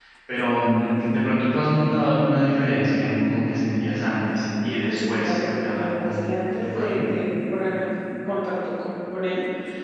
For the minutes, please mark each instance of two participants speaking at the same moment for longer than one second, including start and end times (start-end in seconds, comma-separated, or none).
4.6-7.1